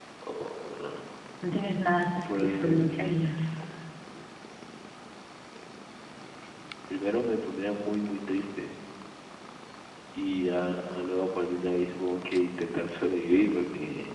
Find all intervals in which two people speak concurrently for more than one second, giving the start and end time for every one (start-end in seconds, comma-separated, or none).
2.2-3.5